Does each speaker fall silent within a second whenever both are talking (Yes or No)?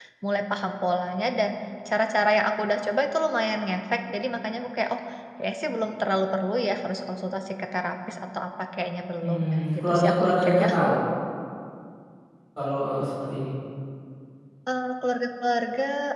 No